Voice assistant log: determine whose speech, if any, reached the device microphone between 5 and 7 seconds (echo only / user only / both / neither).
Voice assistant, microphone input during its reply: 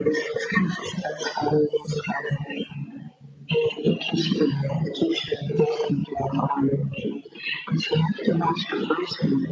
echo only